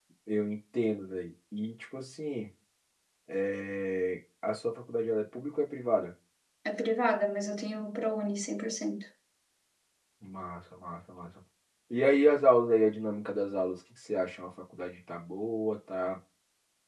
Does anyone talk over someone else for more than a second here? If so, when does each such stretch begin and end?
none

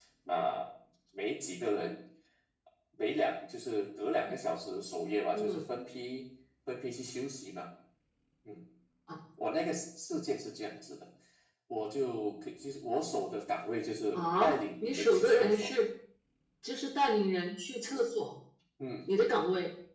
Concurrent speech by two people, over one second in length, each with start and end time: 14.1-15.7

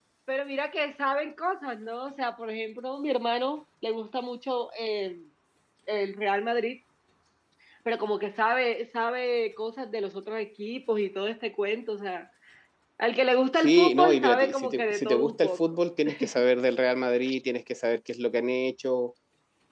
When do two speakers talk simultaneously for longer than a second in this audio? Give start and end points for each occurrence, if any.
13.6-15.6

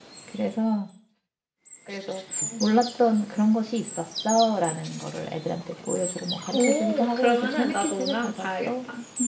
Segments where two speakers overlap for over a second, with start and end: 6.5-8.7

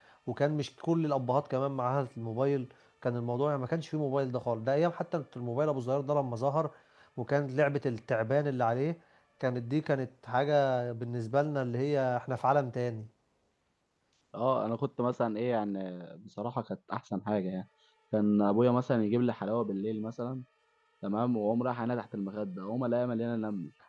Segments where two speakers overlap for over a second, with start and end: none

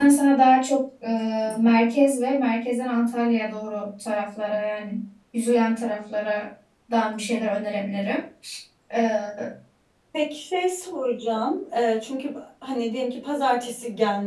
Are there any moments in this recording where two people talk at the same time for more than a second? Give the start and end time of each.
none

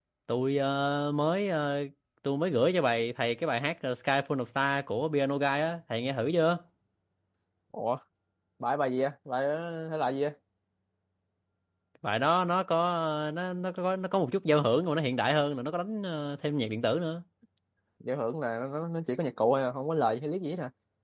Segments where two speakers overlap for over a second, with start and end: none

